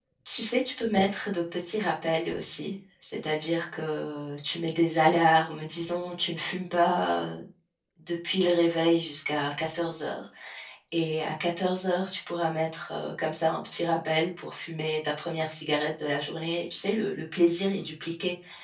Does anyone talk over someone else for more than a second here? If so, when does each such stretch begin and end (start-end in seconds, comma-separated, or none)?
none